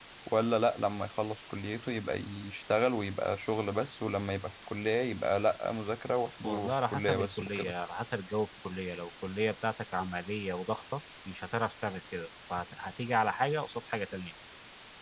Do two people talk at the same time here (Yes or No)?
Yes